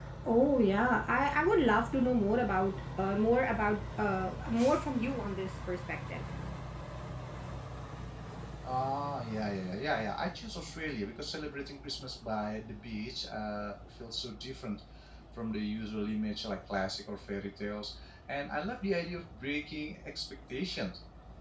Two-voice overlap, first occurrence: none

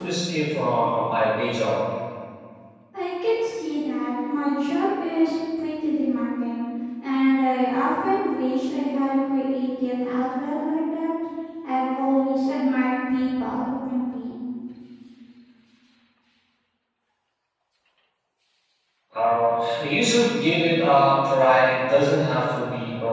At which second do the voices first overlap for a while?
none

